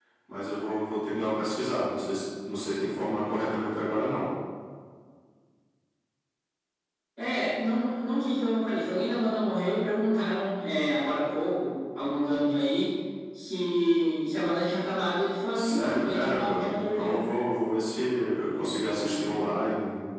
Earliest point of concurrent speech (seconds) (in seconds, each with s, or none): 15.5 s